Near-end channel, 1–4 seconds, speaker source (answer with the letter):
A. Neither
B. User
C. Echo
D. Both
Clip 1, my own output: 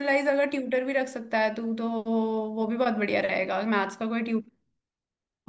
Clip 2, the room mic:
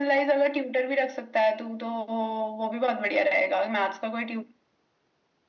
C